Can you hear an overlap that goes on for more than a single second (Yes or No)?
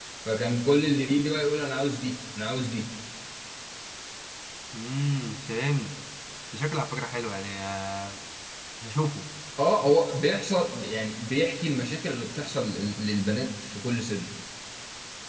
No